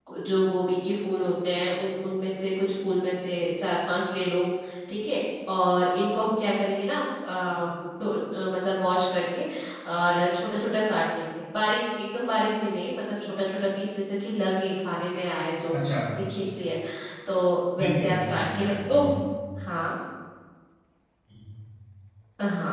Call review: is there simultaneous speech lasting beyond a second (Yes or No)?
Yes